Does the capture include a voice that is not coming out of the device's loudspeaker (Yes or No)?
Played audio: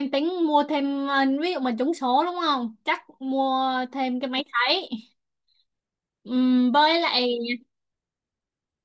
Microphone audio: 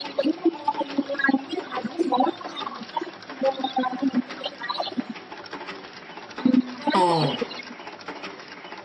Yes